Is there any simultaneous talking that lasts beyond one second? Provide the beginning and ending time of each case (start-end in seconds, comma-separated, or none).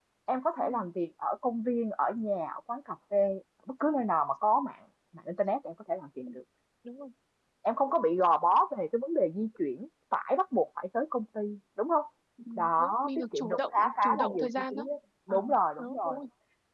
12.6-14.9